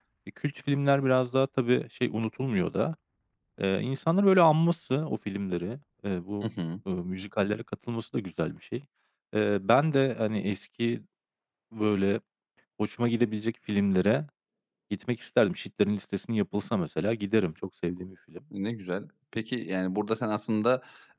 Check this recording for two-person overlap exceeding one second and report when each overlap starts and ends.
none

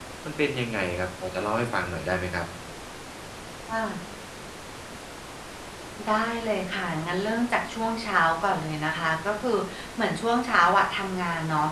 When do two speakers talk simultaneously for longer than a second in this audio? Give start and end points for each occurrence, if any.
none

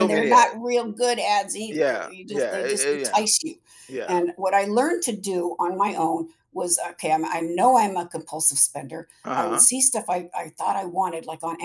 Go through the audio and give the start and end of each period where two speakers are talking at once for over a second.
1.7-3.2

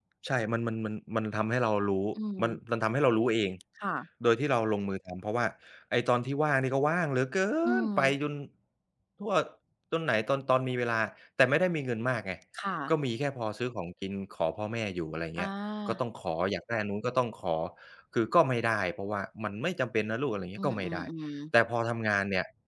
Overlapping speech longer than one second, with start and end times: none

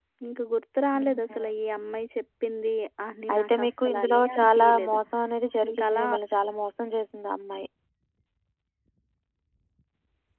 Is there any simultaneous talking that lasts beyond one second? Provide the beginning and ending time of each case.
3.3-5.0

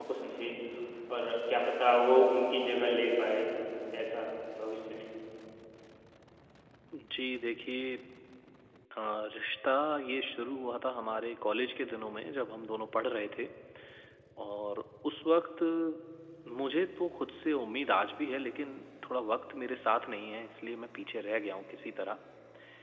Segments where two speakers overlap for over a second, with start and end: none

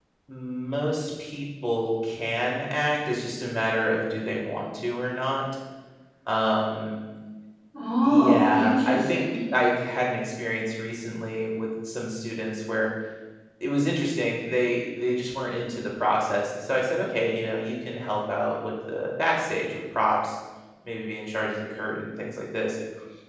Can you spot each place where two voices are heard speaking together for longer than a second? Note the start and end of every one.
8.0-9.2

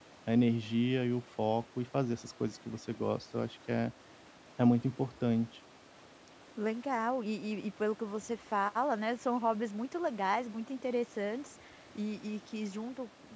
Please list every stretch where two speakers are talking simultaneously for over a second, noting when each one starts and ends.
none

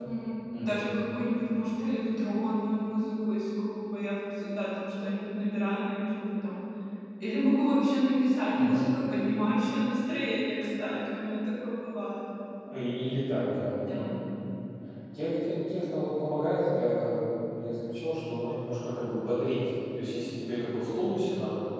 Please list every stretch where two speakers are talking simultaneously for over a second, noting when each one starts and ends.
none

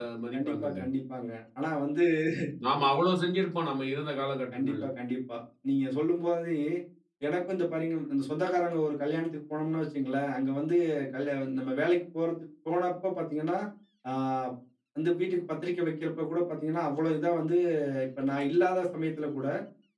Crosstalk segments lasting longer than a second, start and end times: none

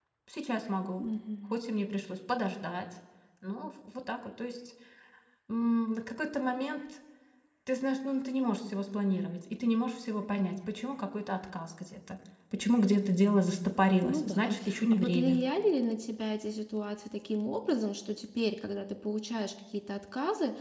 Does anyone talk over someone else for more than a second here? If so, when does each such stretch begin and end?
14.0-15.4

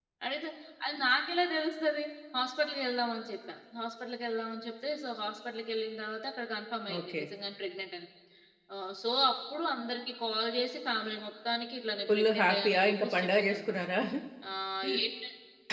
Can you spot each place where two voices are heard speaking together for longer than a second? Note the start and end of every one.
12.1-13.8

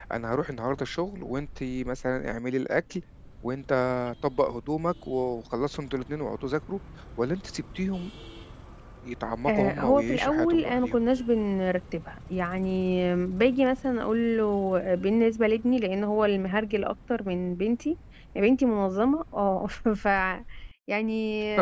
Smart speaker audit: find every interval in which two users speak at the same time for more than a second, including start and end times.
9.5-11.0

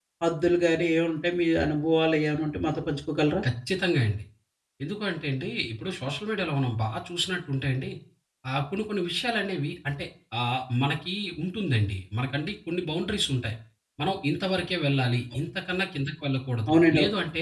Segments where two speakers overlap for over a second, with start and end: none

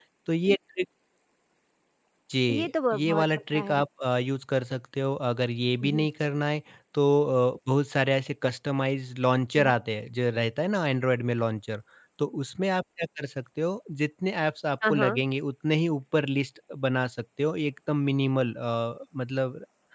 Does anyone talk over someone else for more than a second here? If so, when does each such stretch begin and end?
2.5-3.8

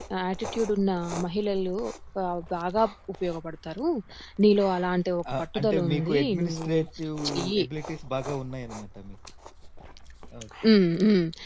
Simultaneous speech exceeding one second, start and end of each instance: 5.3-6.7

